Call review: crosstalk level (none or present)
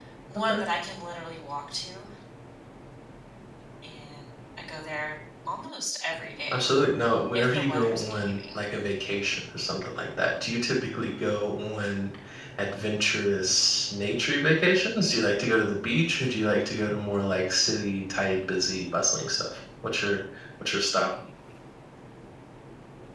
present